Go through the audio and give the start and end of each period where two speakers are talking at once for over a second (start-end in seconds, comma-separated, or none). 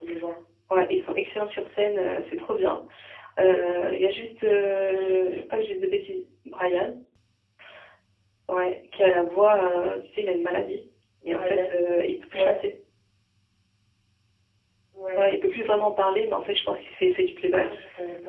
none